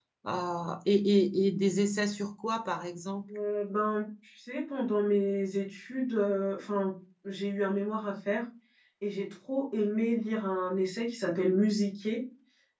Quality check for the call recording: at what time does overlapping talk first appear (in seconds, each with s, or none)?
none